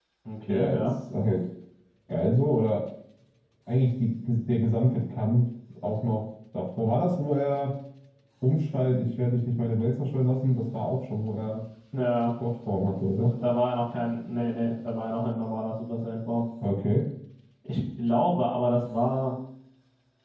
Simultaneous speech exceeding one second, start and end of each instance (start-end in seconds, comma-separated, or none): none